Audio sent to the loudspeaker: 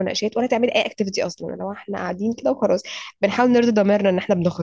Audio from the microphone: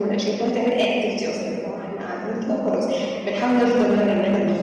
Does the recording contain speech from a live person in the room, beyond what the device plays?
No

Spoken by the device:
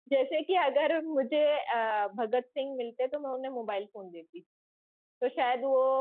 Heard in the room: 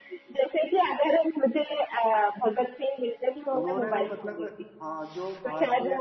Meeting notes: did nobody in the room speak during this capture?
No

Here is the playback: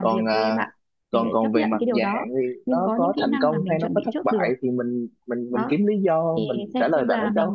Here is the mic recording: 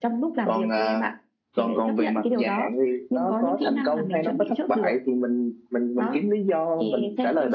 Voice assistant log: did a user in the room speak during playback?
No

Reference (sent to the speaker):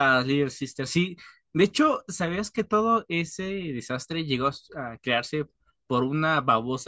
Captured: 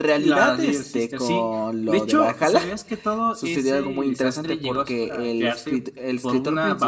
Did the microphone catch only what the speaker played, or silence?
No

